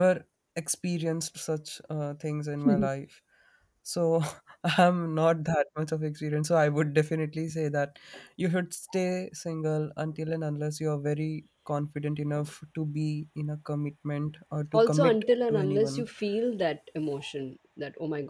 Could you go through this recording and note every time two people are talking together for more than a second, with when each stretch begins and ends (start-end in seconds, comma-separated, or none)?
14.7-16.1